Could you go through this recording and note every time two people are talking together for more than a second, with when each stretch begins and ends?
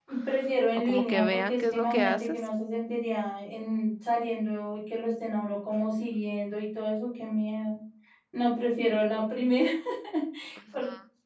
0.8-2.4

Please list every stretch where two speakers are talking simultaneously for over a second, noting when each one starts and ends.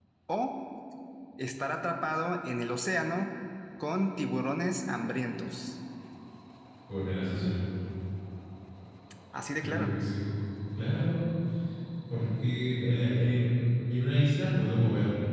none

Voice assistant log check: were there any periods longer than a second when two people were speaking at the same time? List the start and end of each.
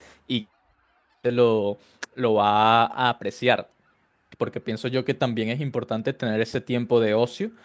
none

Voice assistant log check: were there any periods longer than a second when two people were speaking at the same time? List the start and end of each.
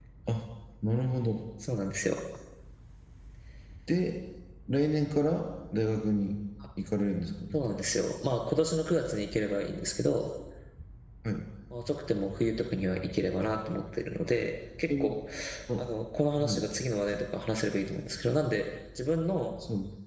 none

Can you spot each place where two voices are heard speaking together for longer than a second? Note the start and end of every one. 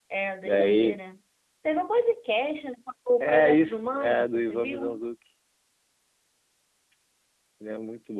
3.2-5.0

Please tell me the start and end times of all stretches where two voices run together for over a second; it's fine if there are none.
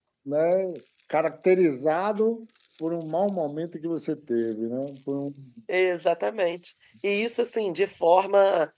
none

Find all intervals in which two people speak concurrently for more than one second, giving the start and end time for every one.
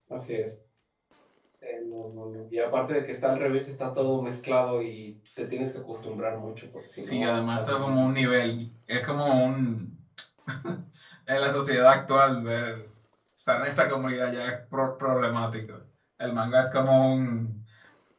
7.0-8.3

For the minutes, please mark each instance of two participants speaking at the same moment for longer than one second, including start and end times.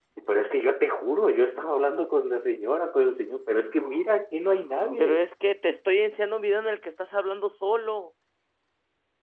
none

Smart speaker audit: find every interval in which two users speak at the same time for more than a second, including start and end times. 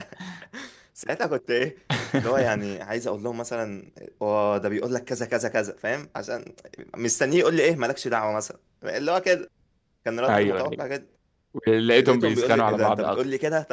11.9-13.2

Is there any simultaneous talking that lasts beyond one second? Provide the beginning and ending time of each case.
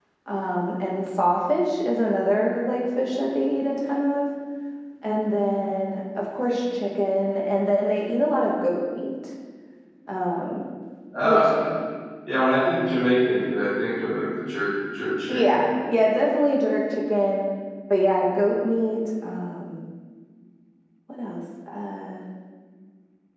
none

